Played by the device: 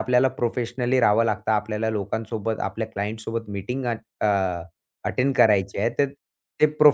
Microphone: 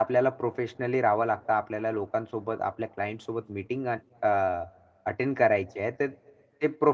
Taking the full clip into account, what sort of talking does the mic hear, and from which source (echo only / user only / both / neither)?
echo only